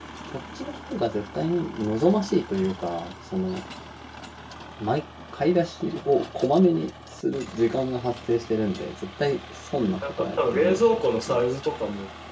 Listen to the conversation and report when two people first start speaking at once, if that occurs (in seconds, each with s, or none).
10.0 s